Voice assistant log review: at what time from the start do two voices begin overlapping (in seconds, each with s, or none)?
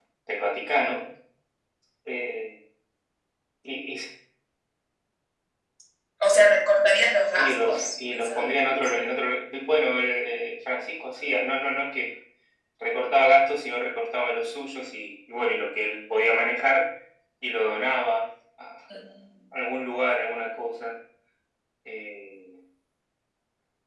7.3 s